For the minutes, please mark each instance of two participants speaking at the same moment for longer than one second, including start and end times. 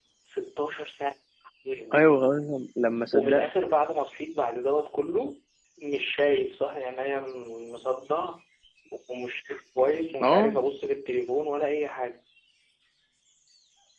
none

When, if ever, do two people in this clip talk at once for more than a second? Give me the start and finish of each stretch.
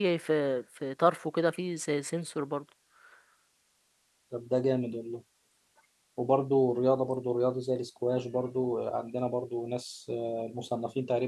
none

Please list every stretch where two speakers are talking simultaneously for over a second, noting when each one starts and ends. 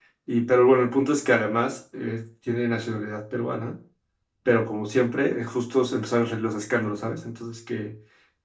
none

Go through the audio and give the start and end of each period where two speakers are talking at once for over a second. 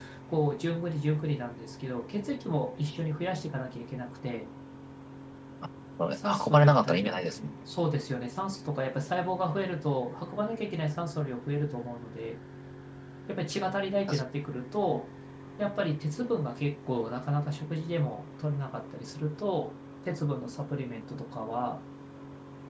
6.1-7.5

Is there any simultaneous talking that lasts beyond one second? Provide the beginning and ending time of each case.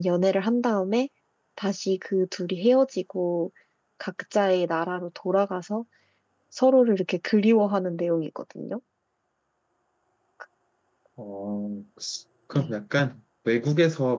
none

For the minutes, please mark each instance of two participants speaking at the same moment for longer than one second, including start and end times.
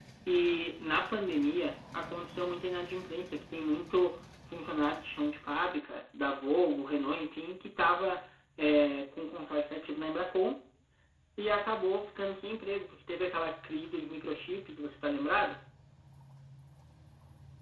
none

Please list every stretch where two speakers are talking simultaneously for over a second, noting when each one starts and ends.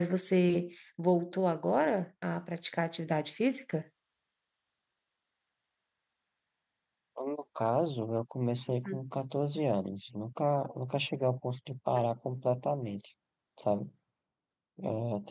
none

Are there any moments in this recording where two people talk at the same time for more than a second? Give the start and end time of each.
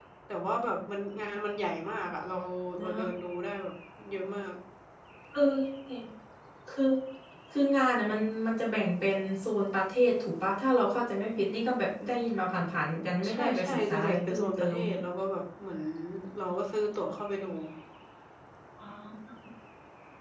13.3-14.8

